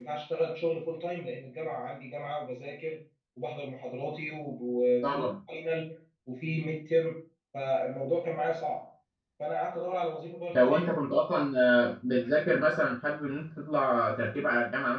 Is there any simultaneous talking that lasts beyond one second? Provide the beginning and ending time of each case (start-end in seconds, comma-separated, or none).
none